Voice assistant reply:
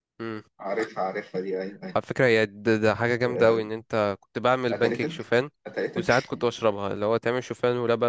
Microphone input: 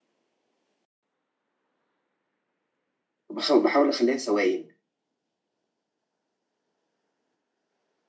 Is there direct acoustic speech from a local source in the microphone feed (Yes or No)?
Yes